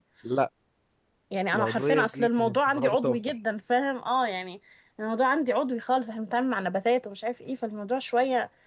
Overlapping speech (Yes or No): Yes